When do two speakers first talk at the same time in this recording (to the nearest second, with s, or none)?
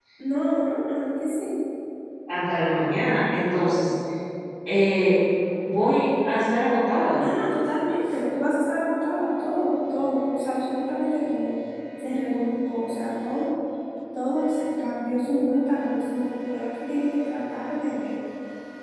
none